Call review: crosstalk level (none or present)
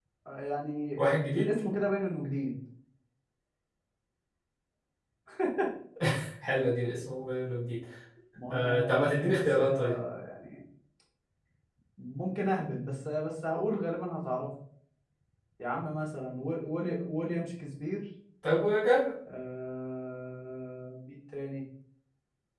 present